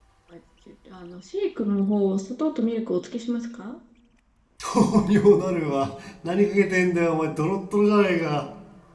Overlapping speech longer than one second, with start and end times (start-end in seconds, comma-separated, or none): none